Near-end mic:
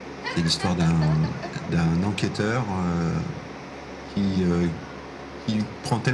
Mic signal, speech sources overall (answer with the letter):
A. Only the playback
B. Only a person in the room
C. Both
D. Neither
A